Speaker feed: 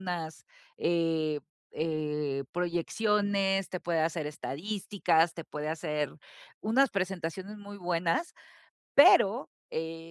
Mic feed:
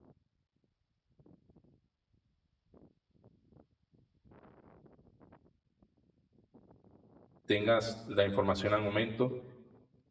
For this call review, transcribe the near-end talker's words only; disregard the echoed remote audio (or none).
tengas la información al momento,